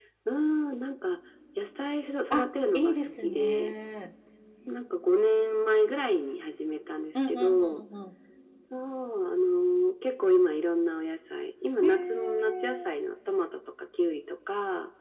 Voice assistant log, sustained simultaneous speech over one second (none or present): present